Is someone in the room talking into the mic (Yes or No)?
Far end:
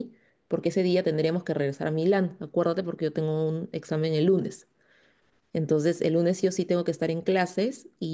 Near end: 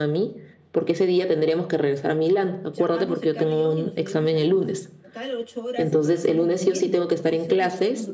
Yes